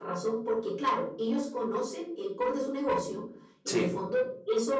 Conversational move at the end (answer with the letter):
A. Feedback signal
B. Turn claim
A